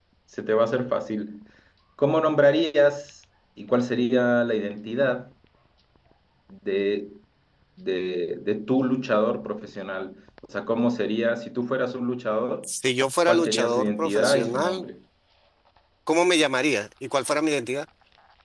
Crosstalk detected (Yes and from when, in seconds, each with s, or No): Yes, from 13.3 s